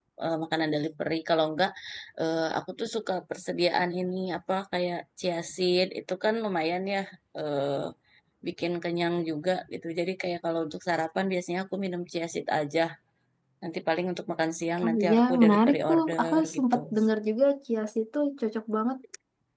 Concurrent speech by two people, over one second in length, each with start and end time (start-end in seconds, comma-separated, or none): 14.8-16.8